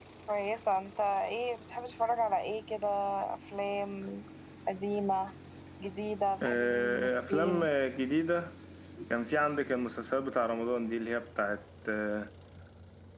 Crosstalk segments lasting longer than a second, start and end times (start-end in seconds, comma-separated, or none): 6.4-7.7